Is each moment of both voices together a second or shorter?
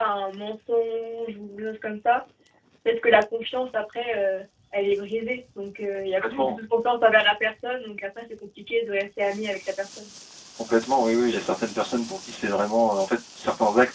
Yes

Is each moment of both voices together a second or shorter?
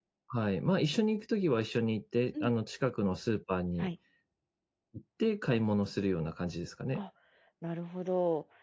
Yes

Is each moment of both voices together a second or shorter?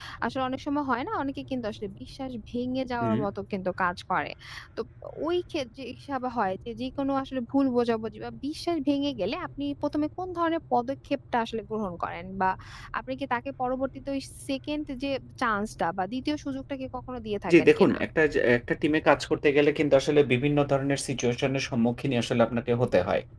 Yes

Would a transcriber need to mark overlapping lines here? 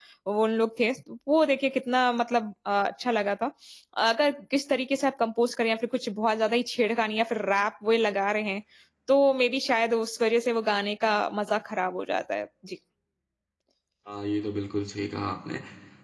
No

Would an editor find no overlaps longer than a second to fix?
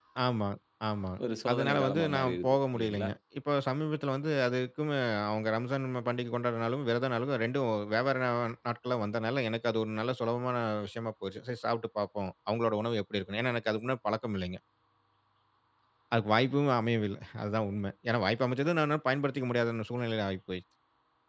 No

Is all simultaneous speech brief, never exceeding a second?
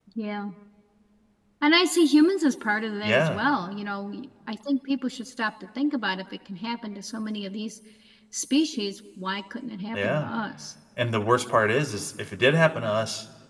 Yes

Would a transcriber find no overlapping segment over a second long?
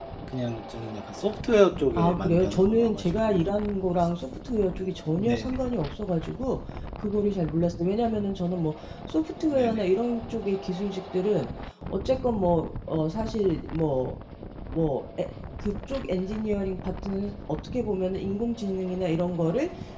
No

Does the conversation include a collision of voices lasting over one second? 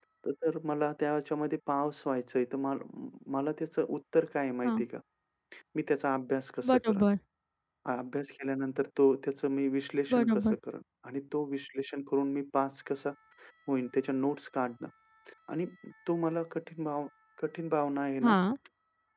No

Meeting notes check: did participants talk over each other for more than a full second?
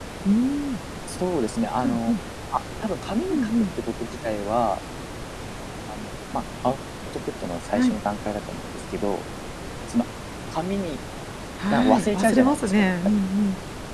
Yes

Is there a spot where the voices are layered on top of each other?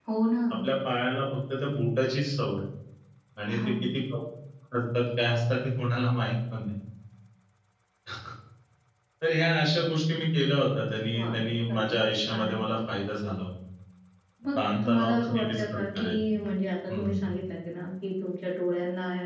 Yes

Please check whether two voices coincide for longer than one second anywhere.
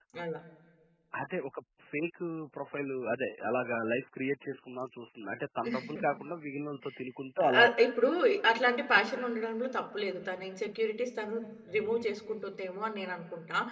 No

